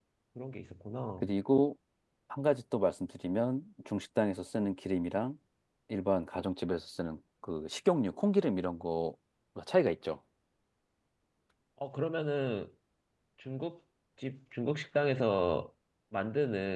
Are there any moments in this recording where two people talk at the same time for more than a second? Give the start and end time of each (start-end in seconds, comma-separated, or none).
none